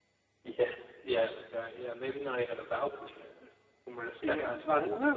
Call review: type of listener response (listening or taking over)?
taking over